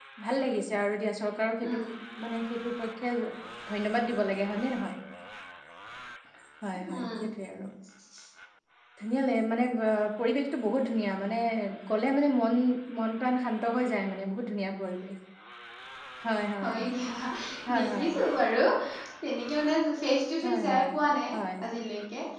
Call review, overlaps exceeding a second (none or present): none